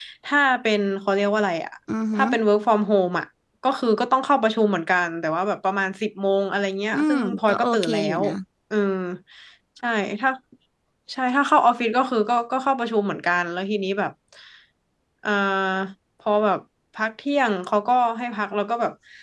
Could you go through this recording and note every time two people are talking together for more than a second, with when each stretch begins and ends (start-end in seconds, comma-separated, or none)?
6.9-8.2